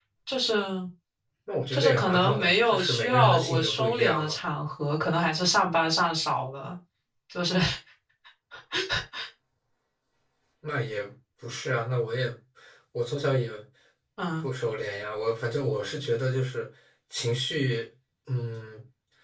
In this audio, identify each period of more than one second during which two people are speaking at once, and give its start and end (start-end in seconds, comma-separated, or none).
1.7-4.4